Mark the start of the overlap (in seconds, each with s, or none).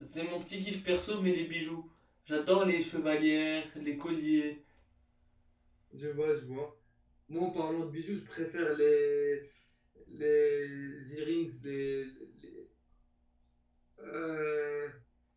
none